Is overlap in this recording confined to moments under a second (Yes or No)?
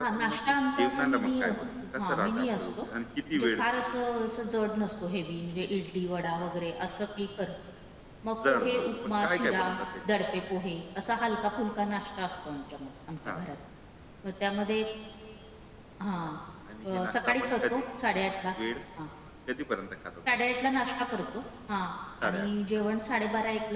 No